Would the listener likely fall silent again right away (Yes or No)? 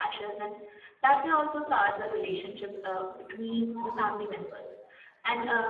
Yes